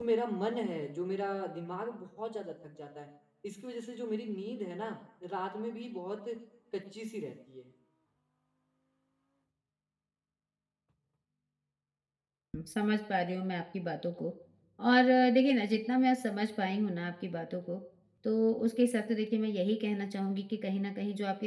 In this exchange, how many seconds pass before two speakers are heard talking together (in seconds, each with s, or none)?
none